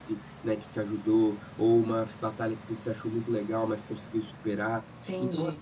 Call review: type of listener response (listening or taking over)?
taking over